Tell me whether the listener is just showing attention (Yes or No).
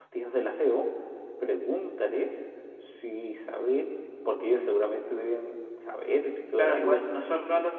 No